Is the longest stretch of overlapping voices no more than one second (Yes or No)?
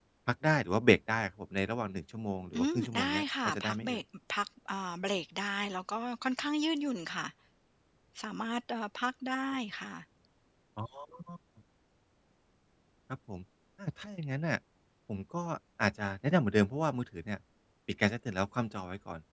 No